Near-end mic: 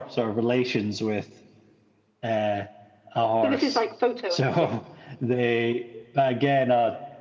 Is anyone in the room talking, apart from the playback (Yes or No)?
Yes